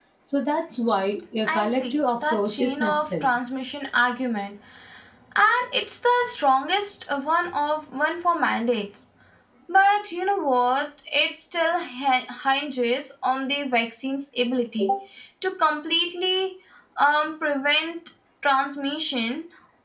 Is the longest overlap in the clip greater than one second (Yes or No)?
Yes